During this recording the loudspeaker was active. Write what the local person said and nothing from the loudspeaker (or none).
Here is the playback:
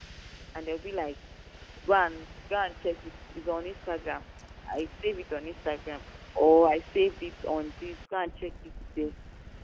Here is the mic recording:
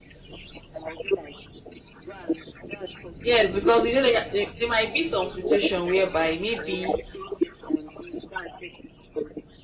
Yes, because you know there, there, there might be some situation whereby maybe